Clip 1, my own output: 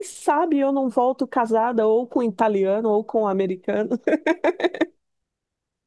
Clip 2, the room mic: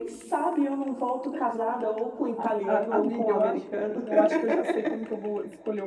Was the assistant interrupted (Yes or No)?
Yes